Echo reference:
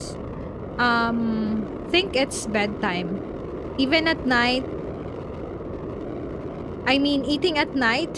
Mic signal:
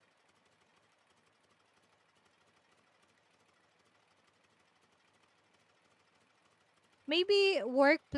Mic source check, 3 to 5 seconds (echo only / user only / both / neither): neither